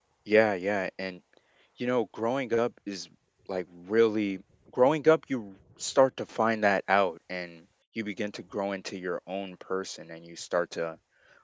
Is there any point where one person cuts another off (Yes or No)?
No